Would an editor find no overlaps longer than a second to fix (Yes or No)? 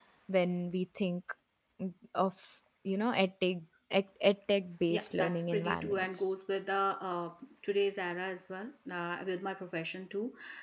No